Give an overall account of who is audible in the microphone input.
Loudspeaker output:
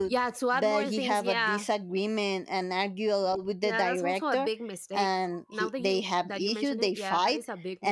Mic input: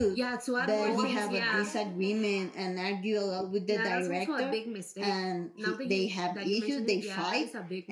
both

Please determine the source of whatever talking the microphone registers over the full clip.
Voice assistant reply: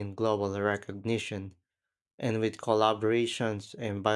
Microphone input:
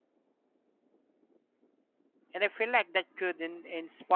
user only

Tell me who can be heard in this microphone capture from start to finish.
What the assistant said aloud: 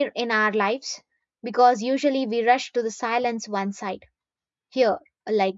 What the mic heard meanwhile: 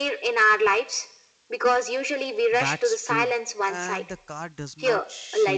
both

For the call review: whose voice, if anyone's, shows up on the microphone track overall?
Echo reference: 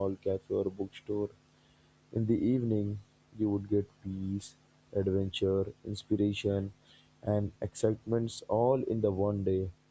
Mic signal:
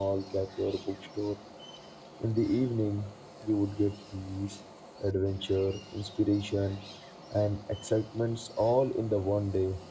echo only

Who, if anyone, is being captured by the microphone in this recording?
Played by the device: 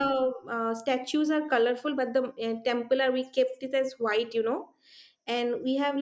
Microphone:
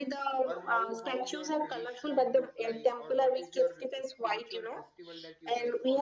both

